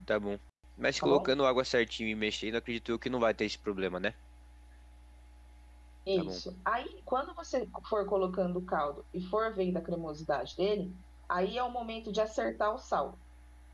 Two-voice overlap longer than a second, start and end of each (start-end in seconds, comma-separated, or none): none